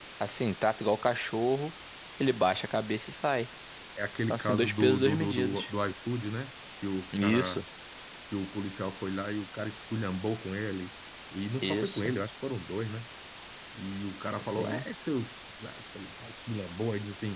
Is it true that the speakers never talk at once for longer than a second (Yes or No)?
No